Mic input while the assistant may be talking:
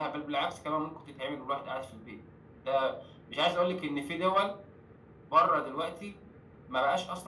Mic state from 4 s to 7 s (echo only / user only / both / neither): echo only